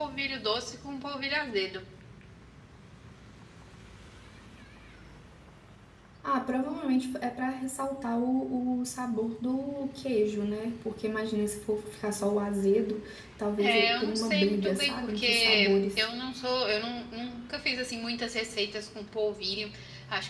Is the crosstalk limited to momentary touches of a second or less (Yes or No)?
No